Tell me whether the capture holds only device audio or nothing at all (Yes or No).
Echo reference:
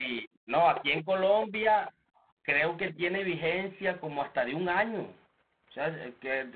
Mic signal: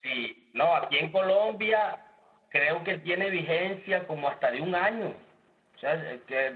Yes